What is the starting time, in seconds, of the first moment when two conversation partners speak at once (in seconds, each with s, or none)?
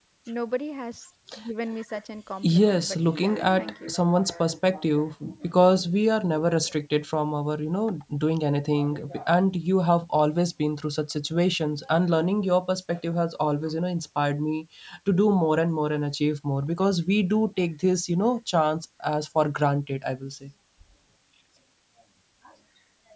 2.4 s